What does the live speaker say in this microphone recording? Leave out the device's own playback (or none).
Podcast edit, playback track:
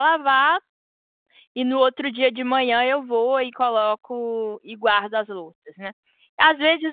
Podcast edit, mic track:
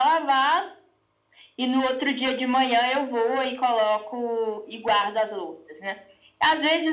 none